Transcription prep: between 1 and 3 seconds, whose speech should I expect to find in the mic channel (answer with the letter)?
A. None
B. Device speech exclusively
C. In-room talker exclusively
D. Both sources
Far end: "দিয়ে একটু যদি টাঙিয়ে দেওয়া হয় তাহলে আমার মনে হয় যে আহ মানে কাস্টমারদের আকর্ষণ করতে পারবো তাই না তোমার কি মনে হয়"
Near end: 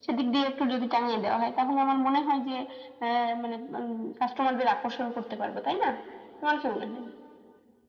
B